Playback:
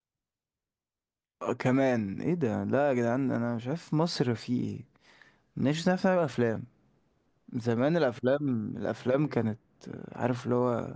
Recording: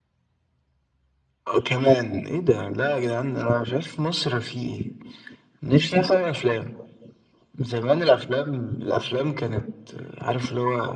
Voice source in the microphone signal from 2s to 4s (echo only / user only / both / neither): echo only